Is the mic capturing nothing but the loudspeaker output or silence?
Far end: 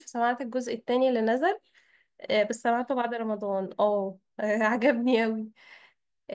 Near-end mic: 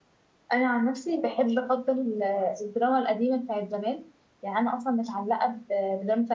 No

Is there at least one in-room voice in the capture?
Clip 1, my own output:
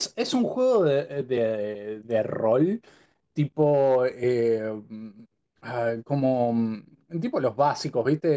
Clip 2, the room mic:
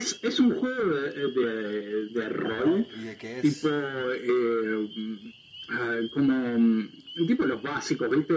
Yes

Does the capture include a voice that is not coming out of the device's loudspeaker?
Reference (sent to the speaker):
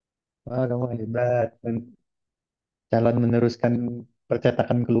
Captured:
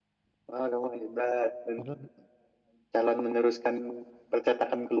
Yes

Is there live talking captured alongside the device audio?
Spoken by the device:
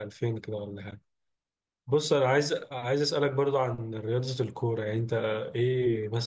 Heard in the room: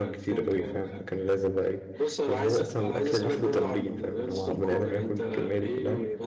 Yes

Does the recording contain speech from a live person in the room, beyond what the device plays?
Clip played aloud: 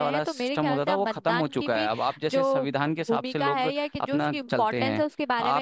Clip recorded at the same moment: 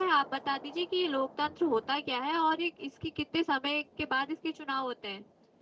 Yes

